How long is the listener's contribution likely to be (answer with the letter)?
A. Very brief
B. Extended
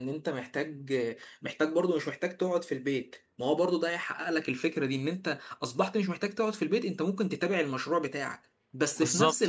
A